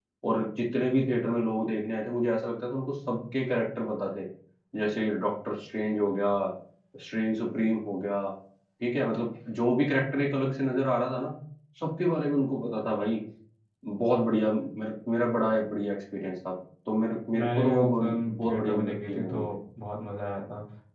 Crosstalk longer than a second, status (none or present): present